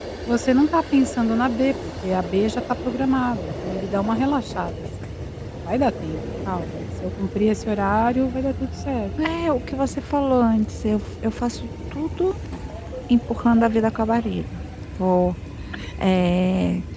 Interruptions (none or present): none